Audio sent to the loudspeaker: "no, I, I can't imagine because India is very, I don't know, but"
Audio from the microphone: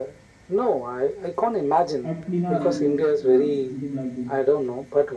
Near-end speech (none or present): present